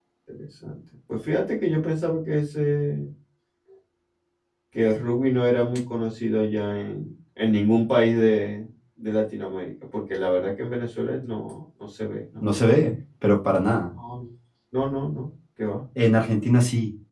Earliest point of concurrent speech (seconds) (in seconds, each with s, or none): none